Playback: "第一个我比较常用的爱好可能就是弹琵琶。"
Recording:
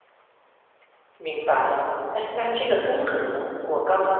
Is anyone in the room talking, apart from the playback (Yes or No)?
Yes